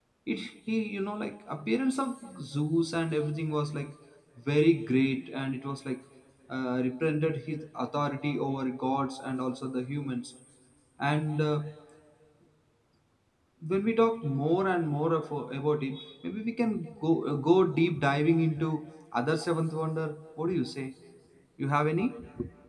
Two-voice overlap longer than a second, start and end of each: none

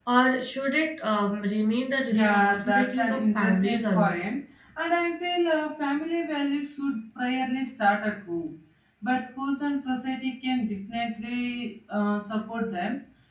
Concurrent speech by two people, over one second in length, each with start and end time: 2.1-4.2

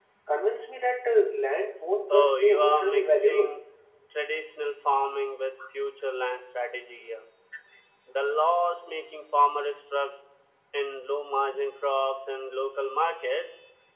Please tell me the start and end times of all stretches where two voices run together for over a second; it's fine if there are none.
2.1-3.5

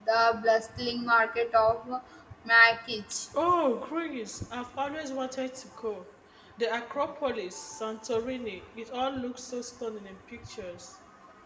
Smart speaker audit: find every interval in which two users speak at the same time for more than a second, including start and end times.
none

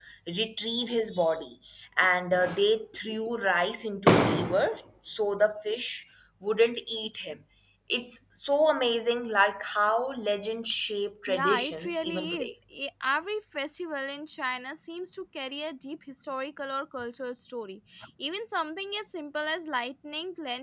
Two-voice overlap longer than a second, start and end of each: 11.3-12.5

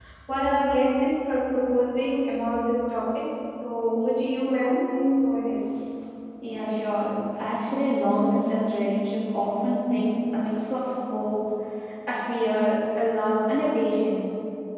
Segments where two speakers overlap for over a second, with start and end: none

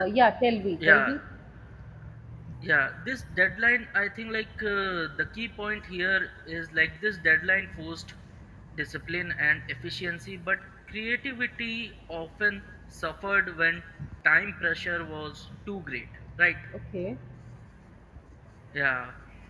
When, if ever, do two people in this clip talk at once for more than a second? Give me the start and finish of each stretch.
none

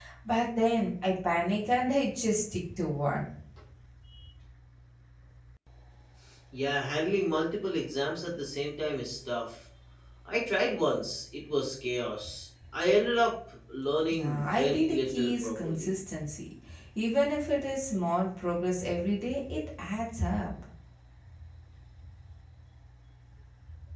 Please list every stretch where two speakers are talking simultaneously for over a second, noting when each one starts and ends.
14.1-15.9

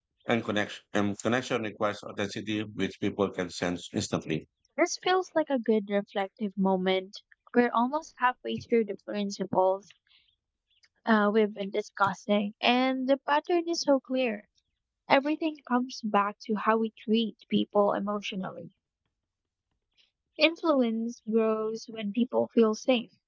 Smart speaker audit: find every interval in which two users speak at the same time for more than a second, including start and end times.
none

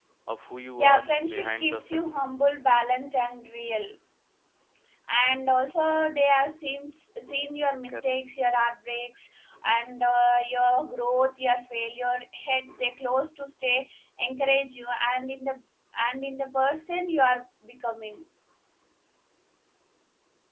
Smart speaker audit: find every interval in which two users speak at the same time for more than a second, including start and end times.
0.8-2.3

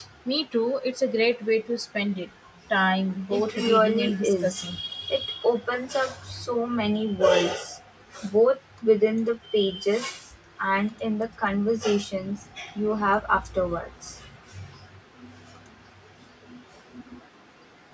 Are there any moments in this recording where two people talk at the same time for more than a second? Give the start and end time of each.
3.3-4.8

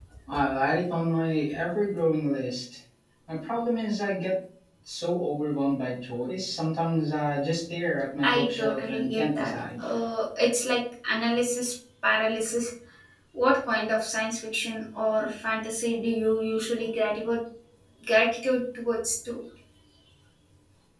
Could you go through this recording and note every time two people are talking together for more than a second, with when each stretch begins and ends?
8.2-9.5

